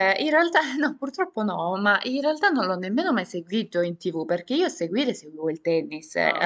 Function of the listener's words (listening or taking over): listening